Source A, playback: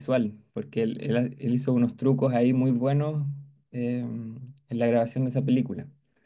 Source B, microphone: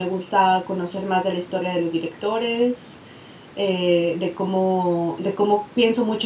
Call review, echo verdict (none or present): none